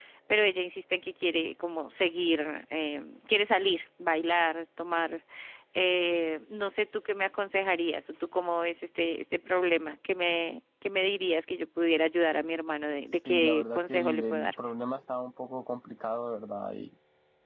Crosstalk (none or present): present